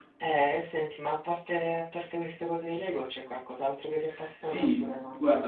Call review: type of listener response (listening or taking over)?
taking over